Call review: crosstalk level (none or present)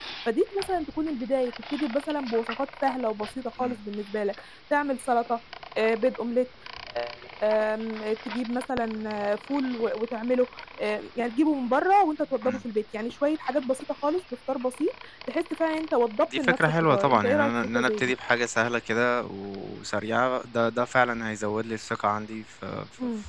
present